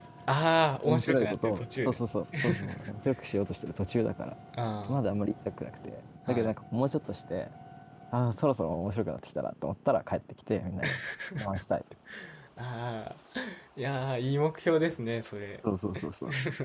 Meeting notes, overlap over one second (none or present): present